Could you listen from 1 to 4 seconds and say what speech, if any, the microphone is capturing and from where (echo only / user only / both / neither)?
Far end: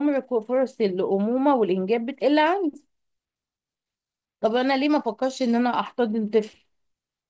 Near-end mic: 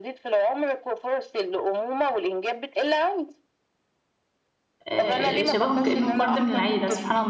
echo only